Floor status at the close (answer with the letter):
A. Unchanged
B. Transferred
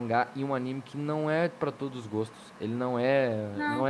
B